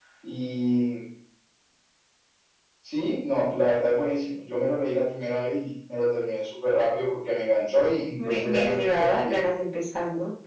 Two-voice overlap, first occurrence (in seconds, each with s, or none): 8.2 s